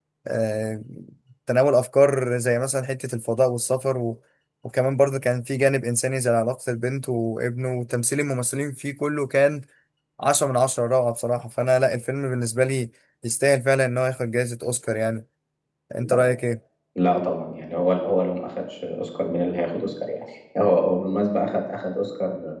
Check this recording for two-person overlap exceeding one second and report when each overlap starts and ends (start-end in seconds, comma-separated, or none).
none